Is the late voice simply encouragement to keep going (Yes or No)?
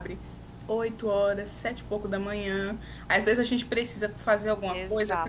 Yes